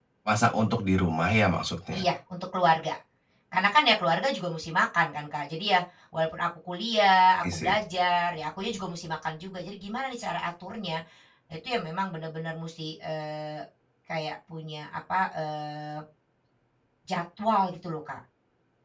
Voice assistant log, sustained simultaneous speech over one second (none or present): none